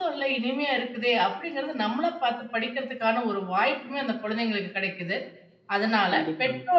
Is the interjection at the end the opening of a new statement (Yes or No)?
No